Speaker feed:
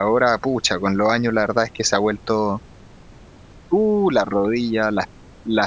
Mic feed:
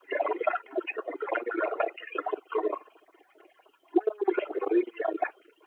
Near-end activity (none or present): none